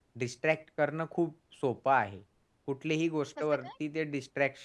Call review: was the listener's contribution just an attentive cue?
Yes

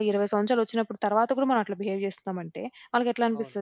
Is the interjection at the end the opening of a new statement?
No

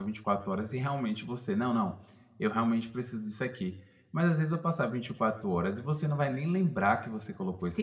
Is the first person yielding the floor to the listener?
Yes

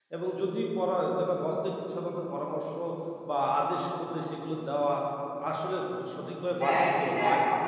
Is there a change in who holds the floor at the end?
Yes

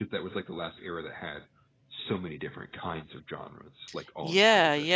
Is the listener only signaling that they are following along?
No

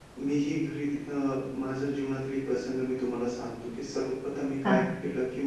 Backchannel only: Yes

